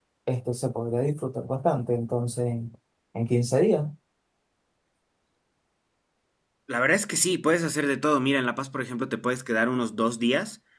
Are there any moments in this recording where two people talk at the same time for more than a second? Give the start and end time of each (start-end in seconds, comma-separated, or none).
none